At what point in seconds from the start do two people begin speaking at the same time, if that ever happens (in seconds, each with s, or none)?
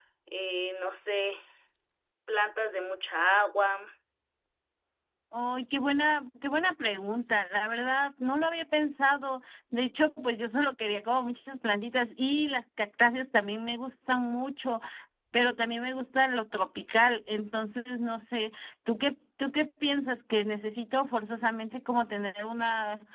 none